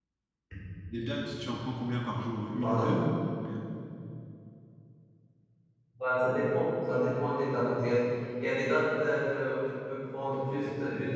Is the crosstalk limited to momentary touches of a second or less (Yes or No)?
Yes